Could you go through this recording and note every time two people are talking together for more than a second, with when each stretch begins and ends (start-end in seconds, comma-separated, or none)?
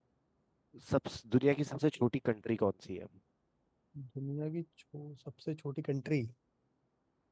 none